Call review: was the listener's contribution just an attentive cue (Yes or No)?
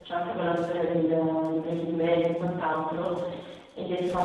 Yes